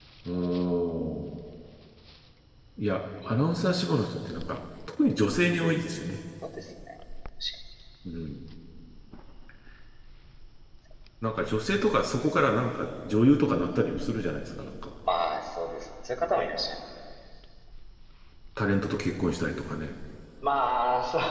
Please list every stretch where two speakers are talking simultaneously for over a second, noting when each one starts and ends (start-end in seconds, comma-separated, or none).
none